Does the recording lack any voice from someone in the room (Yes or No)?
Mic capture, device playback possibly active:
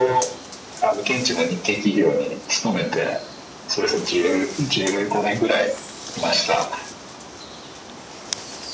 Yes